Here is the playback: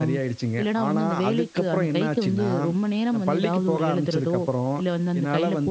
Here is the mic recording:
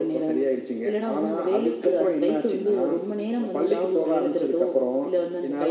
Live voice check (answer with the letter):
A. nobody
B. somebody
A